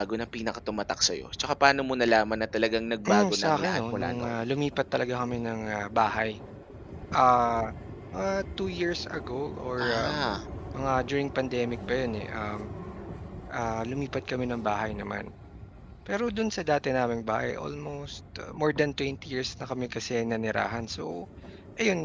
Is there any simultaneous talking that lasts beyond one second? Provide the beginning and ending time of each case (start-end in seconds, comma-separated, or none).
3.1-4.3